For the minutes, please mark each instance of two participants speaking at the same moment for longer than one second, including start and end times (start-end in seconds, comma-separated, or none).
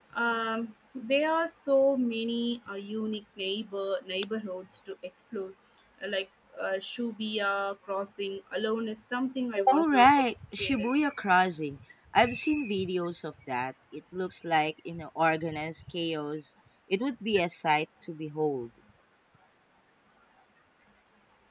9.7-11.1